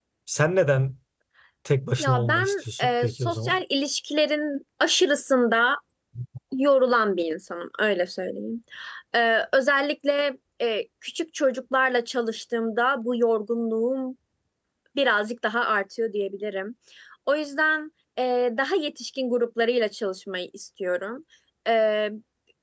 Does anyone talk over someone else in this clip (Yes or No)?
Yes